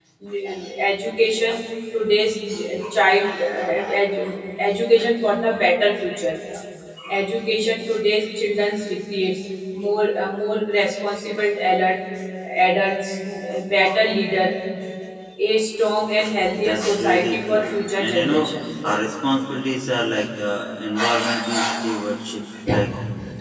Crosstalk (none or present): present